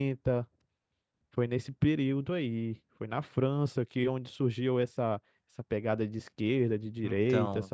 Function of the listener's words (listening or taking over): taking over